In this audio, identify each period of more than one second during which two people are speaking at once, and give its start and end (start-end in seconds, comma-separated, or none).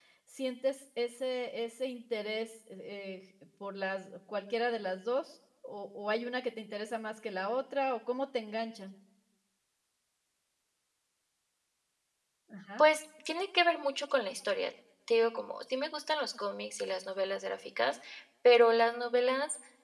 none